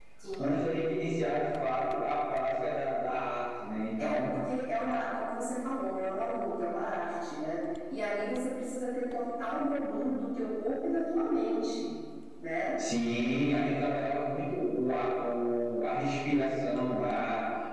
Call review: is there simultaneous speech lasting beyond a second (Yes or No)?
No